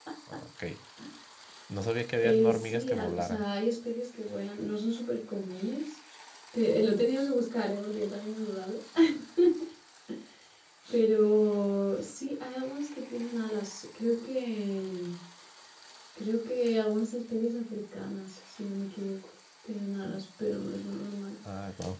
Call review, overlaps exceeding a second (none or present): present